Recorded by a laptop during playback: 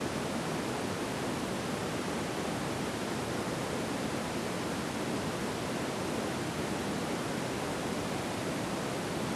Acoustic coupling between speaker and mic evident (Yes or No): No